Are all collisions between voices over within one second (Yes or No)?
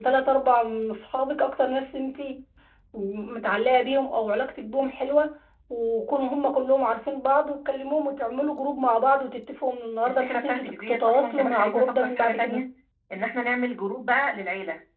No